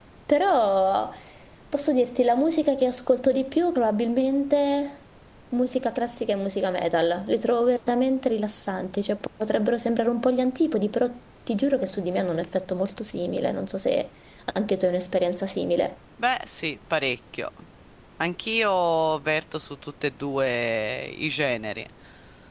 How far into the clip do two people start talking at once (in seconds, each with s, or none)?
none